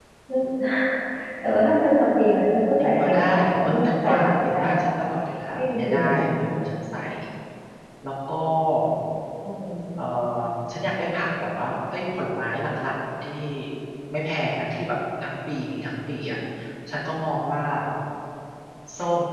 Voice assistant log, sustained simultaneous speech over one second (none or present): present